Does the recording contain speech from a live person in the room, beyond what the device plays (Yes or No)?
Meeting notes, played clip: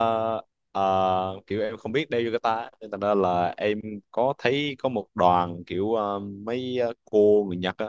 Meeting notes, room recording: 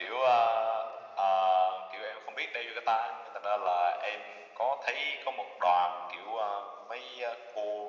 No